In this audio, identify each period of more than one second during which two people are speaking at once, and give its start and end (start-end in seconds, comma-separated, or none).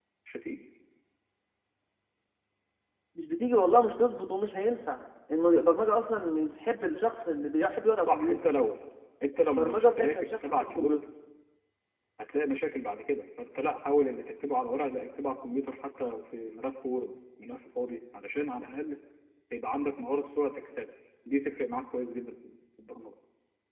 9.4-11.0